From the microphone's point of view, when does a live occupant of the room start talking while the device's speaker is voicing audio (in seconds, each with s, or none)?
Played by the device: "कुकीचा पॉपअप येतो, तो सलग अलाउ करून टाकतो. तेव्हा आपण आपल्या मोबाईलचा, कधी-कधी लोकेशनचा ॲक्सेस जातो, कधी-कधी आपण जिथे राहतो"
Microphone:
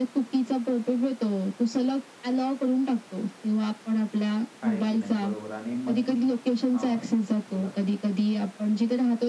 4.6 s